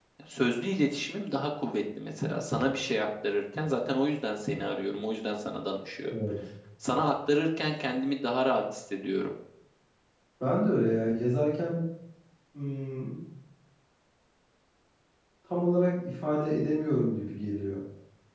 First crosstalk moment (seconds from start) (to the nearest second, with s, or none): none